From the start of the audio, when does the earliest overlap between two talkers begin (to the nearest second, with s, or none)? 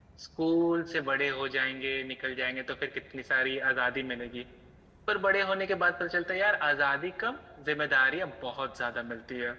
none